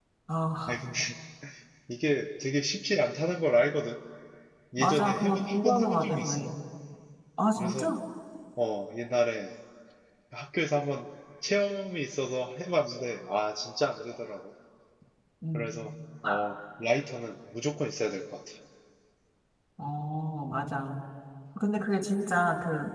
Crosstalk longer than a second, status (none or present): present